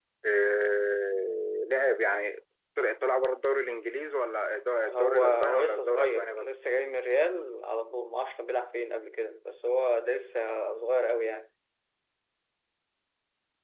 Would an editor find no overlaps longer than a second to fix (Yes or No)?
No